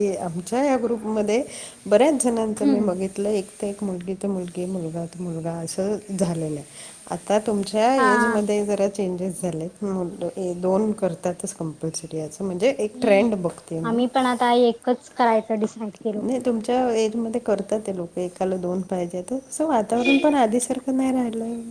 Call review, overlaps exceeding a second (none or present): none